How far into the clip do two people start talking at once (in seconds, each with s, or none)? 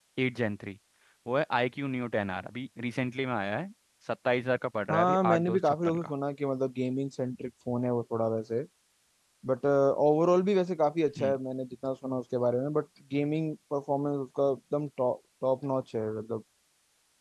4.9 s